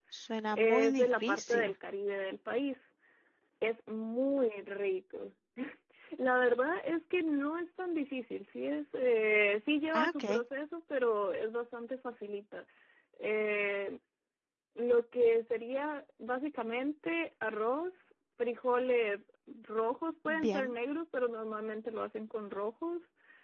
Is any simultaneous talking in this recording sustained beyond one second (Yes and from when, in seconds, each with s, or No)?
Yes, from 0.5 s